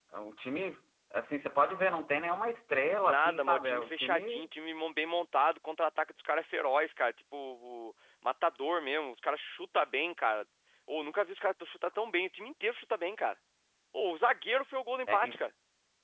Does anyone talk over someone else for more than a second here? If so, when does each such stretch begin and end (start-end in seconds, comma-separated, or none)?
3.0-4.4